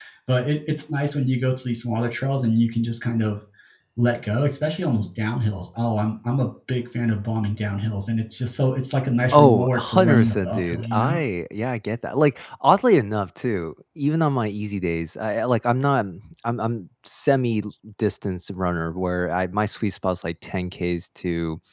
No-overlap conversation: No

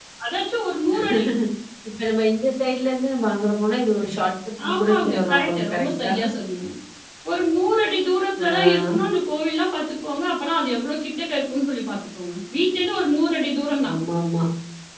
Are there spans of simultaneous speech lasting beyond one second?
Yes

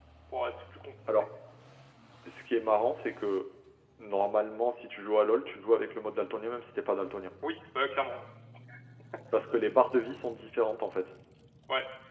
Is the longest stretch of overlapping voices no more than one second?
Yes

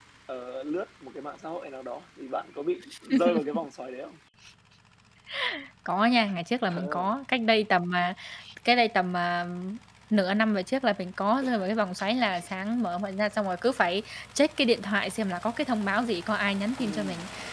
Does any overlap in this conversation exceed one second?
No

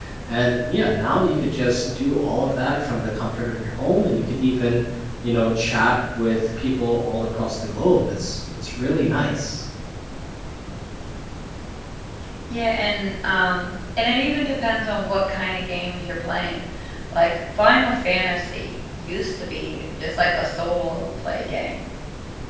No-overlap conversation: Yes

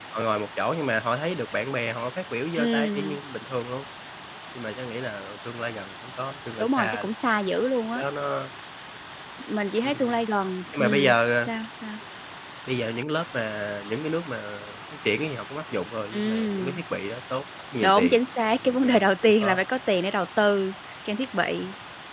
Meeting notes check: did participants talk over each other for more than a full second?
Yes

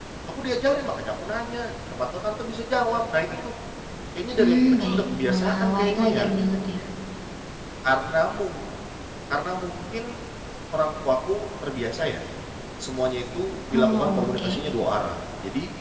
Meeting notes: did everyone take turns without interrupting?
No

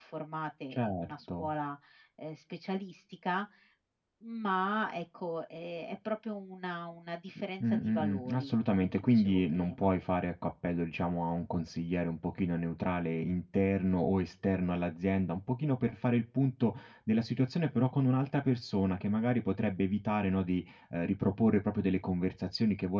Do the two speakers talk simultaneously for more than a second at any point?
Yes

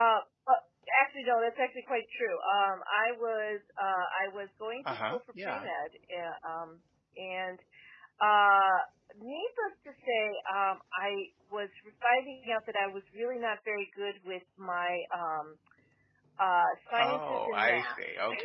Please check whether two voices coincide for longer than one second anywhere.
Yes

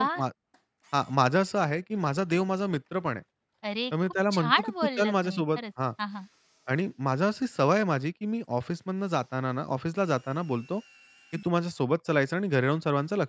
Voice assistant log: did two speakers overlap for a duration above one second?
Yes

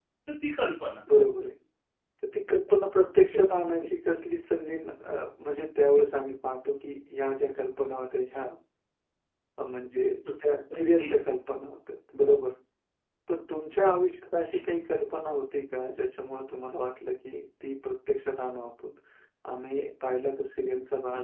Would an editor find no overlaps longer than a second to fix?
Yes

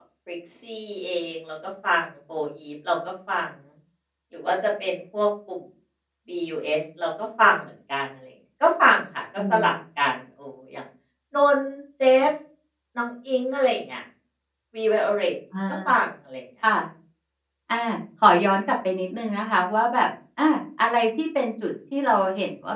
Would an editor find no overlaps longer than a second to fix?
Yes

